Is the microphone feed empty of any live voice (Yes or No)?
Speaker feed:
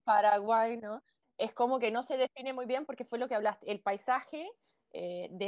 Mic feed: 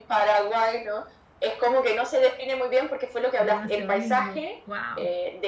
No